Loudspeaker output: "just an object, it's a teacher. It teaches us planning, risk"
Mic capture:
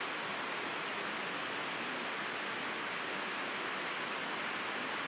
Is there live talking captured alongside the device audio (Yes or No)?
No